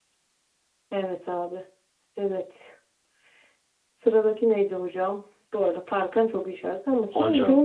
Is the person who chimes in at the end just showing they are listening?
Yes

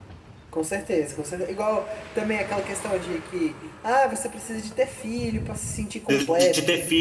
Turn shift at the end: Yes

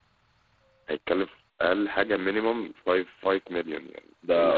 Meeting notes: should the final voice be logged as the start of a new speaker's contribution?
Yes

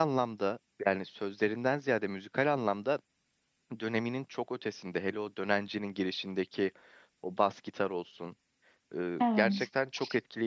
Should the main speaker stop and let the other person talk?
No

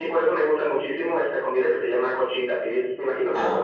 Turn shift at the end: Yes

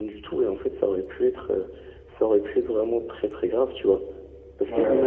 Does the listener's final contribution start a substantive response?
No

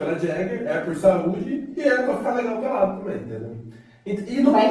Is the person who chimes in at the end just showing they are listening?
No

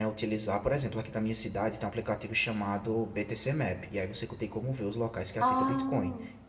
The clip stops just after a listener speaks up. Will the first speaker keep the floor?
Yes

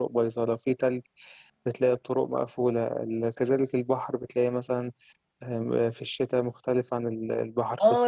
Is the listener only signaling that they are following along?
No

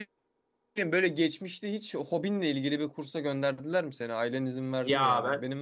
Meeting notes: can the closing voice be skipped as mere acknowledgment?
No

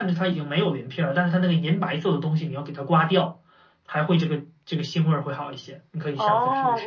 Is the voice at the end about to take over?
Yes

